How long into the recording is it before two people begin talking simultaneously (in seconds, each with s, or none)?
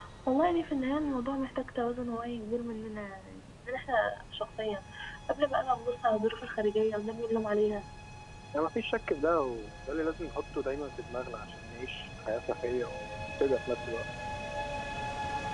none